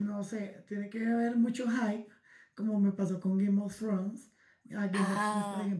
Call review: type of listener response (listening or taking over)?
listening